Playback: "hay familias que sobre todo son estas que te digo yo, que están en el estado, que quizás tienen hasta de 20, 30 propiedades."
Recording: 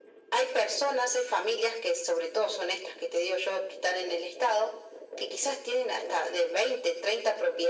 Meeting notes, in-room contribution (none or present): none